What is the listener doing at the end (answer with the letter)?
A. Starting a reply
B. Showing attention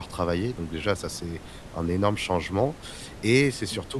B